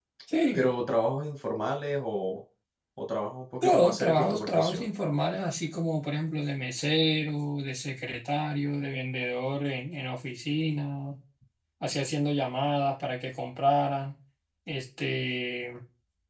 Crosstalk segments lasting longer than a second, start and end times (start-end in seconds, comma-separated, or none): 3.6-4.8